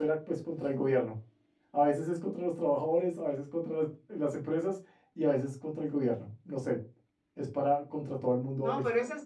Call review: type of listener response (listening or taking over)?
taking over